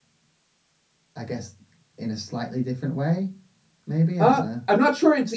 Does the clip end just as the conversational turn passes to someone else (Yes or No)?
Yes